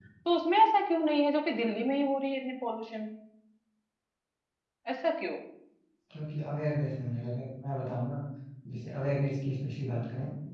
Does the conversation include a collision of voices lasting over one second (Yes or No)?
No